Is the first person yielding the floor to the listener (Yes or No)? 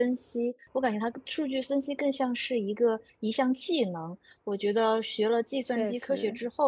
No